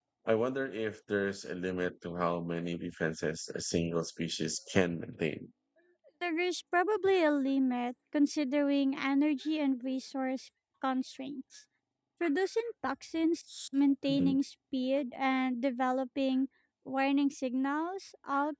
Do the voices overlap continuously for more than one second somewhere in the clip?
No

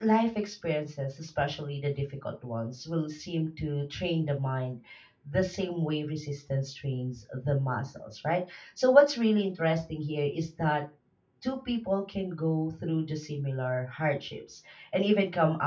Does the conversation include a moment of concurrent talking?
No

